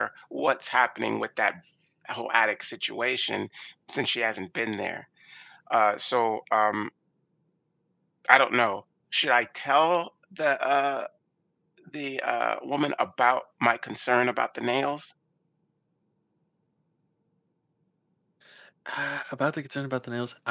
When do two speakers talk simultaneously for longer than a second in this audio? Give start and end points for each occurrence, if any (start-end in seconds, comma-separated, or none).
none